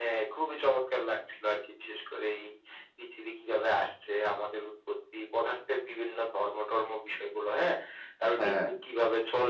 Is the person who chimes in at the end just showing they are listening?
Yes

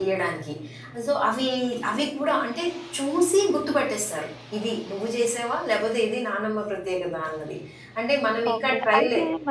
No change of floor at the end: No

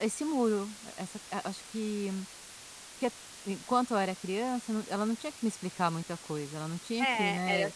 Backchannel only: No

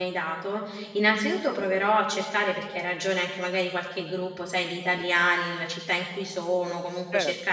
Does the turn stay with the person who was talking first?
Yes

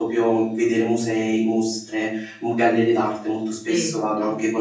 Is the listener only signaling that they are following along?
No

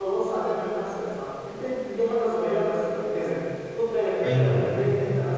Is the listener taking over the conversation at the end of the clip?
No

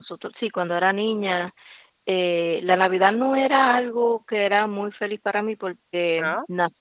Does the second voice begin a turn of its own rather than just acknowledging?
No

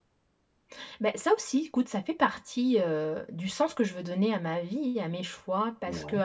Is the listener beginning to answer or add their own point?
No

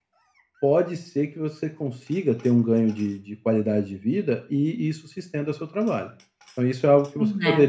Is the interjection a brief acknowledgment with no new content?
Yes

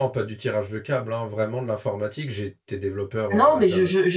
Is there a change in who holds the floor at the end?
Yes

